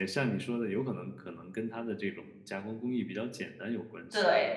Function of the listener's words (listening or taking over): taking over